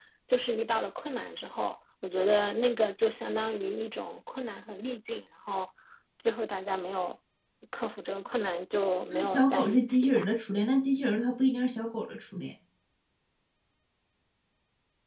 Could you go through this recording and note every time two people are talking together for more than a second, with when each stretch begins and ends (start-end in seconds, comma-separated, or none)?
9.1-10.3